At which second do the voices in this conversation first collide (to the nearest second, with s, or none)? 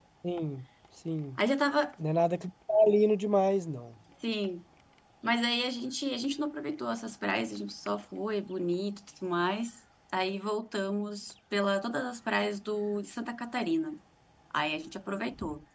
none